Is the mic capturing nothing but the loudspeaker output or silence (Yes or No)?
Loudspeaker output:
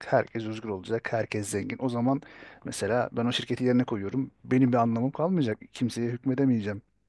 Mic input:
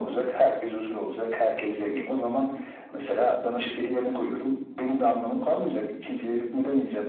Yes